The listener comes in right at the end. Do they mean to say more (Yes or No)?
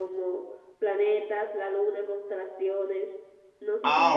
Yes